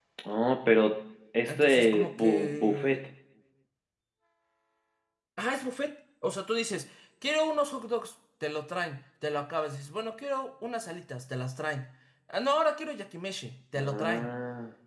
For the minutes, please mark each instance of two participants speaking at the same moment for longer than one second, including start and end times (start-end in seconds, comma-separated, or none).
1.5-3.0